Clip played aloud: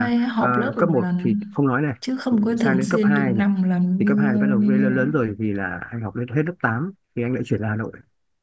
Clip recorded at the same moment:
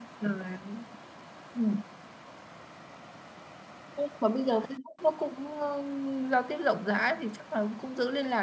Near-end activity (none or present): present